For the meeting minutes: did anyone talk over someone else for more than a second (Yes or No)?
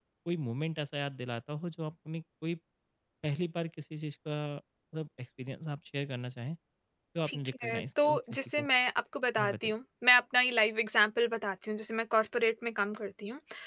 Yes